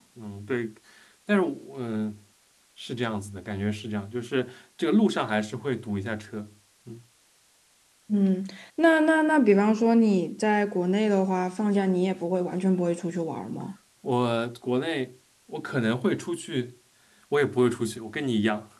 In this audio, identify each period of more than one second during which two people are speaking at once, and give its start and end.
none

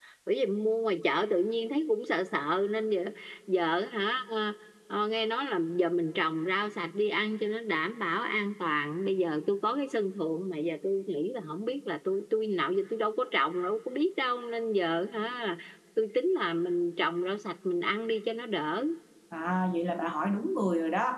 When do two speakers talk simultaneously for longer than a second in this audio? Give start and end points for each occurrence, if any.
none

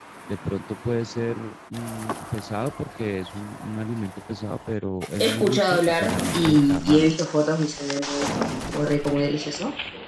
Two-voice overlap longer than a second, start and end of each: 5.2-7.1

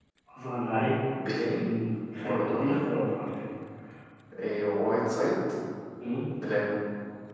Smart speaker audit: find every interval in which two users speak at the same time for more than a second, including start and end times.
none

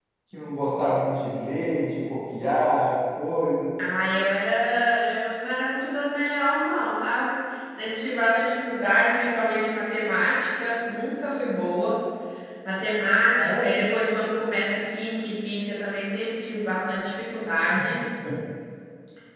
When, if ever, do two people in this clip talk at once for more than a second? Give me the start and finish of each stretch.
none

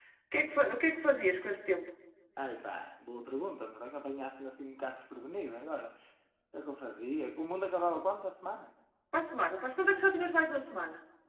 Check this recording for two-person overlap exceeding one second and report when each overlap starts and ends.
none

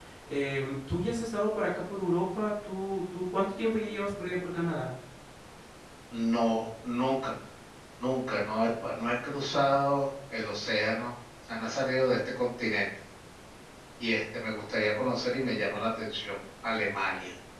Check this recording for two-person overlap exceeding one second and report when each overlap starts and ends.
none

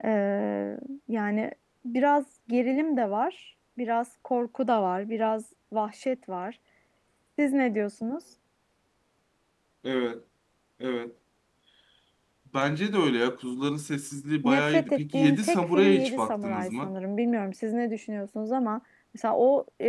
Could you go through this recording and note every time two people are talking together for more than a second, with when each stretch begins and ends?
14.4-16.9

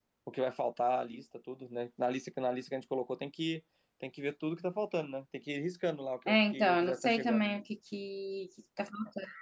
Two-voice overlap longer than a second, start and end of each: 6.3-7.6

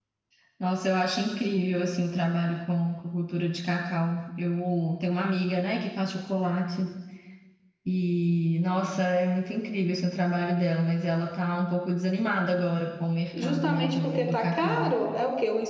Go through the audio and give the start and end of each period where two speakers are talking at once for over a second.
13.3-14.9

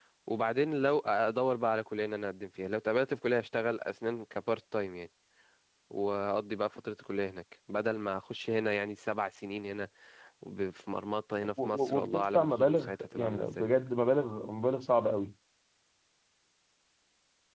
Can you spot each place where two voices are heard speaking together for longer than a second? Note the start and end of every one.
11.6-13.7

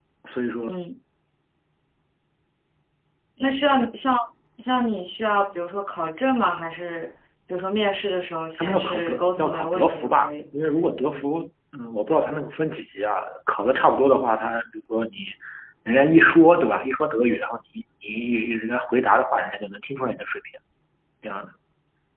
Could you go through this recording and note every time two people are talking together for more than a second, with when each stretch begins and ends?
8.6-10.3

